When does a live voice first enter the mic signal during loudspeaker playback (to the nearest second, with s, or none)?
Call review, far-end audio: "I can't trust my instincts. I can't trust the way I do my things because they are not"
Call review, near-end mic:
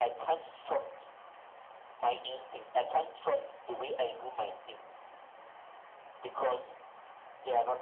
none